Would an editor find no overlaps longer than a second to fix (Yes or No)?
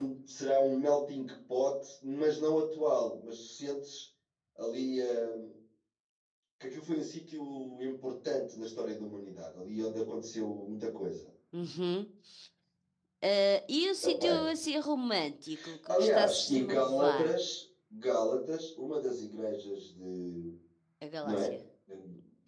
No